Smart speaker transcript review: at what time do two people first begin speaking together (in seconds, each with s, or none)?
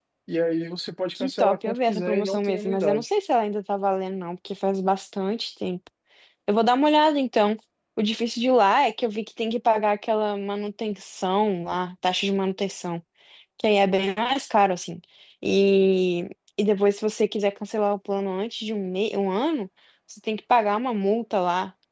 1.1 s